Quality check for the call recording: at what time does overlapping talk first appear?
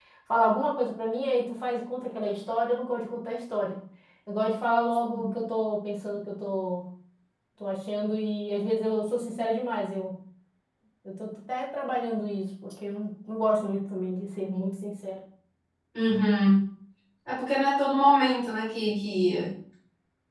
none

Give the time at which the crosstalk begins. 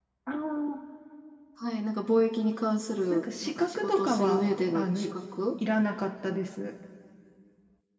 3.1 s

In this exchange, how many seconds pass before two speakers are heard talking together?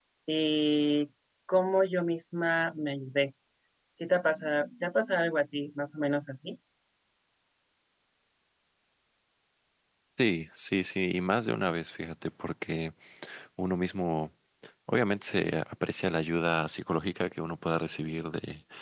none

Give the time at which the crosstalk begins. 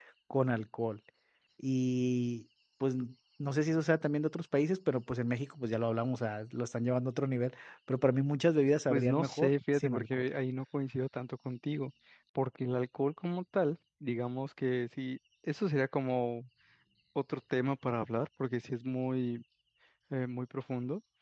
8.9 s

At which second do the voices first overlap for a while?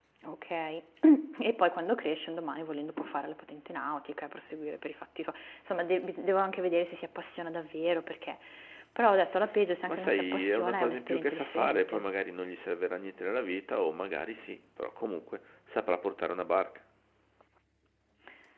9.8 s

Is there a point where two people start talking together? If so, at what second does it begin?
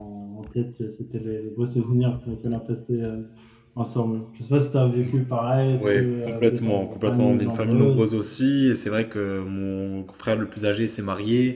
5.7 s

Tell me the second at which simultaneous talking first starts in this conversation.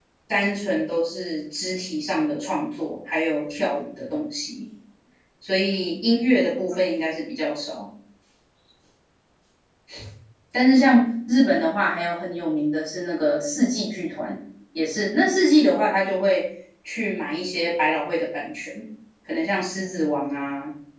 none

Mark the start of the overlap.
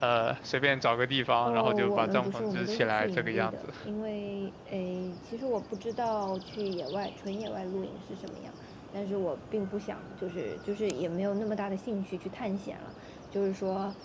1.4 s

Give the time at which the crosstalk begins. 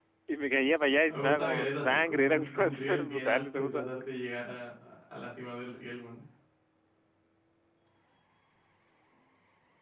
1.0 s

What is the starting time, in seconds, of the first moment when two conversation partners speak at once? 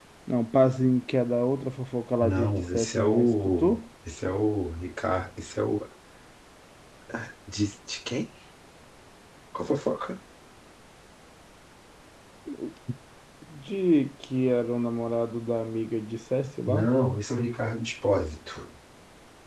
2.2 s

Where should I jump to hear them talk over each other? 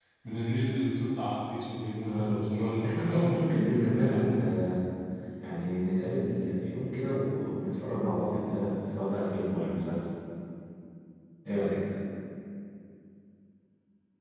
2.1 s

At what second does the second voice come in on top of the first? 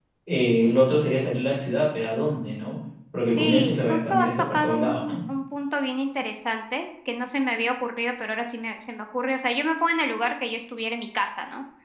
3.4 s

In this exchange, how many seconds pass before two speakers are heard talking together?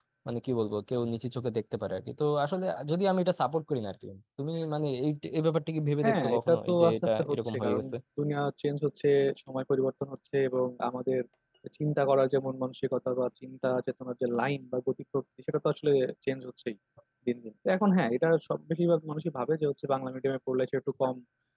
6.0 s

